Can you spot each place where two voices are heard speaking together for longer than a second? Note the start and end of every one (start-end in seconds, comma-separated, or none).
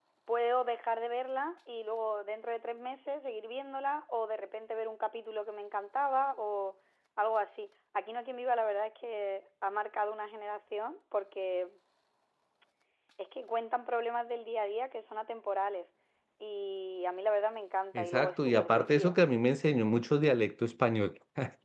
18.0-19.2